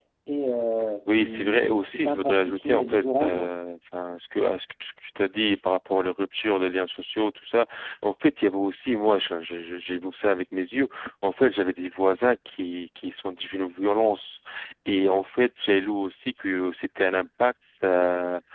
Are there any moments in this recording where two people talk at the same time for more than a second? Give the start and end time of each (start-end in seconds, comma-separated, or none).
1.1-3.5